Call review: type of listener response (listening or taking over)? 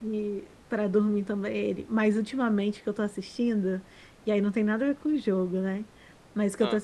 listening